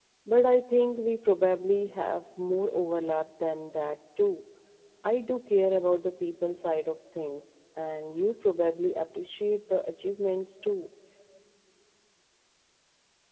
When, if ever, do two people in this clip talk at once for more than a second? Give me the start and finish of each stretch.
none

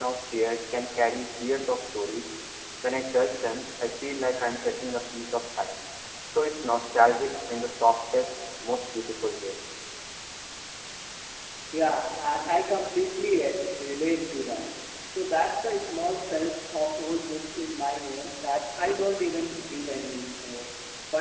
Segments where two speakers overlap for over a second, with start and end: none

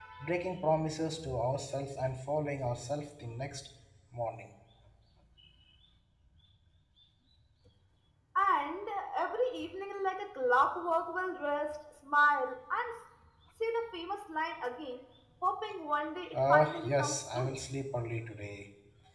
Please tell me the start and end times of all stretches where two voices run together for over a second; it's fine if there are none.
16.3-17.5

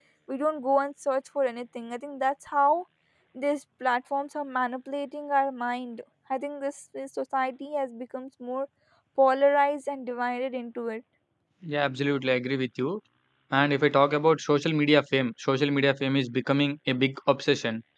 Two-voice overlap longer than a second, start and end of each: none

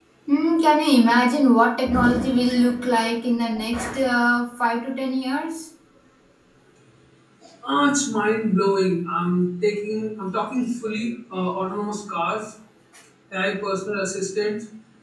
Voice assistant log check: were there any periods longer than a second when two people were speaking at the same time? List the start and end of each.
none

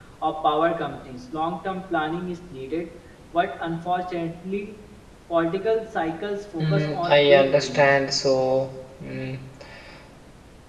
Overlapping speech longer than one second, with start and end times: 6.6-8.0

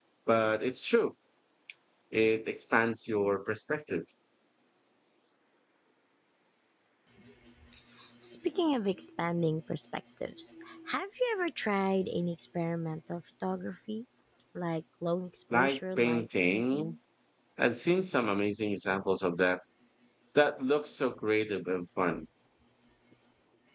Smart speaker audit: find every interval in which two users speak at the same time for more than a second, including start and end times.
15.5-16.9

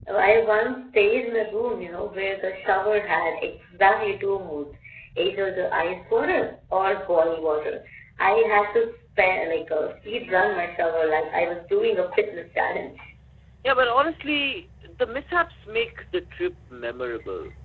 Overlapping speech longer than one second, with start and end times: none

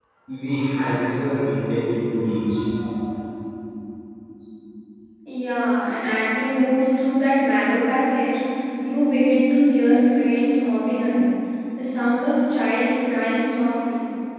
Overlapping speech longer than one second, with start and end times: none

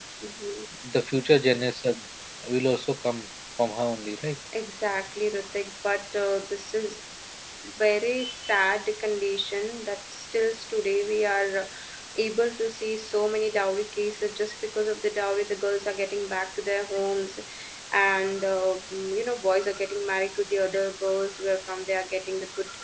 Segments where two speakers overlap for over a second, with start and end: none

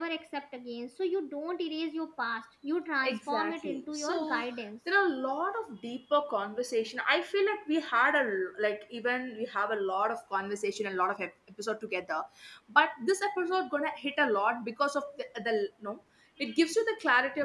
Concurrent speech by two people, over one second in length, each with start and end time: 3.0-4.4

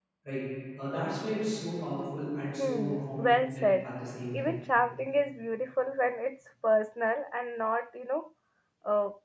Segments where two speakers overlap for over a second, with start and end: 2.6-3.9

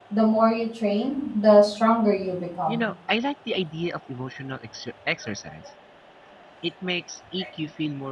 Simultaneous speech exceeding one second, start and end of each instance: none

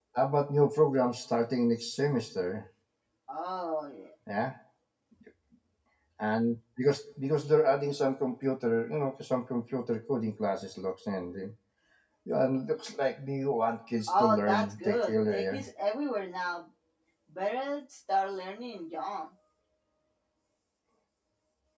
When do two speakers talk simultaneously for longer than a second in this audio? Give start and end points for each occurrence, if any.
14.1-15.7

